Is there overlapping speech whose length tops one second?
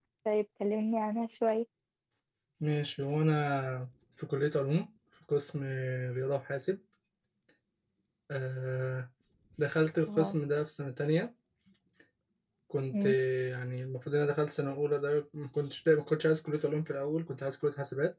No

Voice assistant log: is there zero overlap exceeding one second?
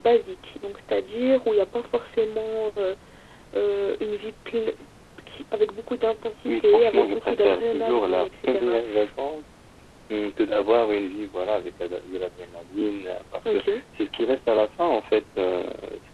No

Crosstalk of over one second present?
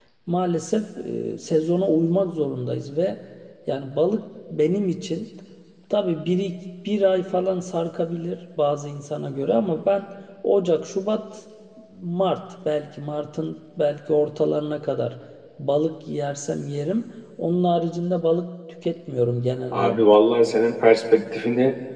No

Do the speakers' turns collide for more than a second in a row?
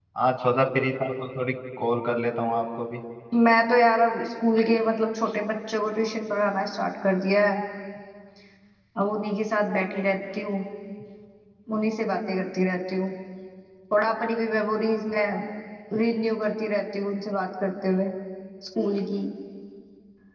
No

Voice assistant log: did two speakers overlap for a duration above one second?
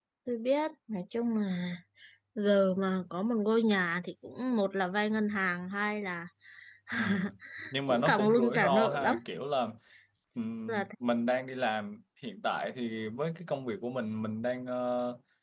Yes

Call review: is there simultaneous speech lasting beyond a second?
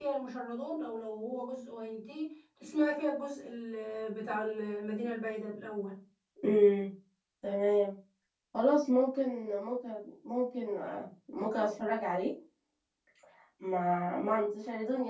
No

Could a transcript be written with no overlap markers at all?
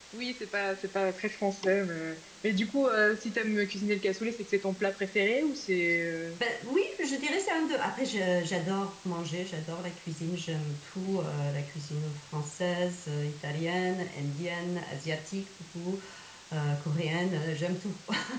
Yes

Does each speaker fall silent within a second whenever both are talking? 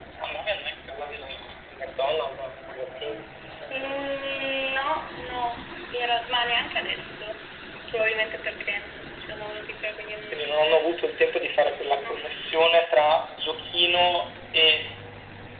Yes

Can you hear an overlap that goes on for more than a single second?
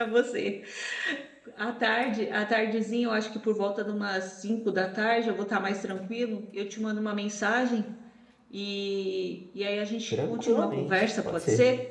Yes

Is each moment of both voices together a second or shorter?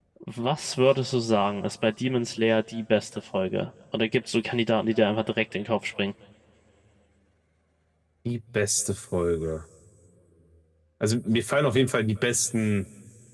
Yes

